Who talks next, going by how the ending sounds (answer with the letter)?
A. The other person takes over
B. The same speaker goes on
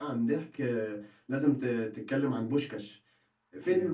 B